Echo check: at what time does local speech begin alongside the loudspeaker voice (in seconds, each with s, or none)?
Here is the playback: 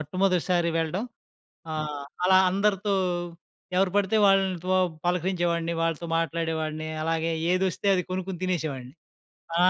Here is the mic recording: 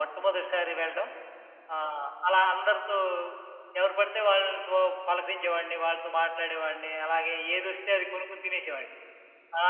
none